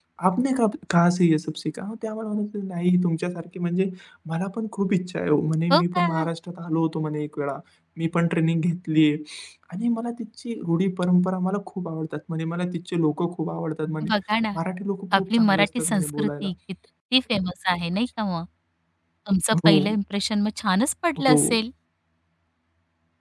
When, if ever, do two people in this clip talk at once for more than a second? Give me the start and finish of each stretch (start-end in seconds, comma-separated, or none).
15.2-16.5